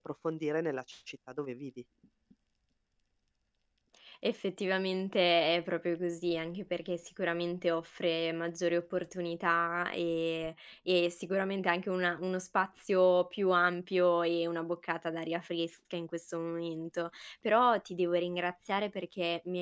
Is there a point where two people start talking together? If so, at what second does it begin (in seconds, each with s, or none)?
none